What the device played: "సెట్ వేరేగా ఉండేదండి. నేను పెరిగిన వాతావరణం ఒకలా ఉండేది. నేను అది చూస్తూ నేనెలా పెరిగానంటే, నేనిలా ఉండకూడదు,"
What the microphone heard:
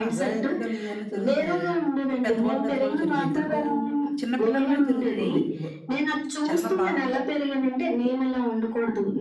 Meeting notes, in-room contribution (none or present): present